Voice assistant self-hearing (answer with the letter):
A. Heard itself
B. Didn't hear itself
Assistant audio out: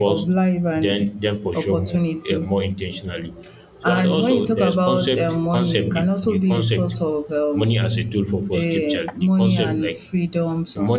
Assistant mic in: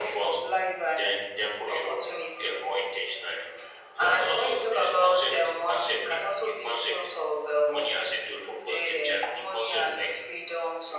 A